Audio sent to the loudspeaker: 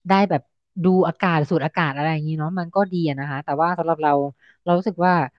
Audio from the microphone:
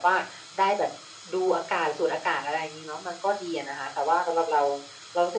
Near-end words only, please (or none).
none